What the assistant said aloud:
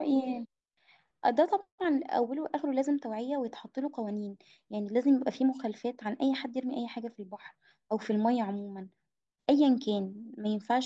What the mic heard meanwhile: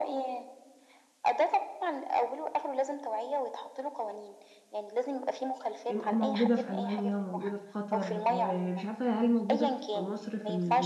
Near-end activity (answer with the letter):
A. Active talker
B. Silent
A